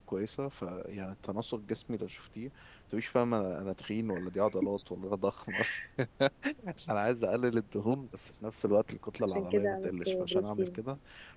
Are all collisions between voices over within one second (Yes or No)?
No